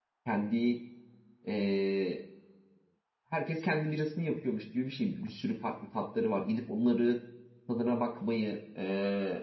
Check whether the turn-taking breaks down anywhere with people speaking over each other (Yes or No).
No